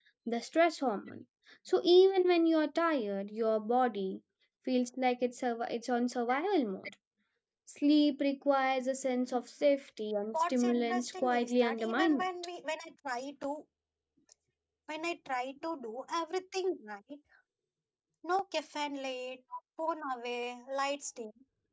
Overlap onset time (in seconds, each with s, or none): 10.3 s